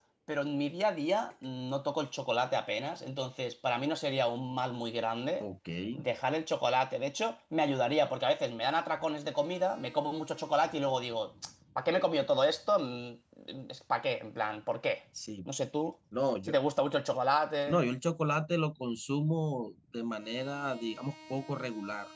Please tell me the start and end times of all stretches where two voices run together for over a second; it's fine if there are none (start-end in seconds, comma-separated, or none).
none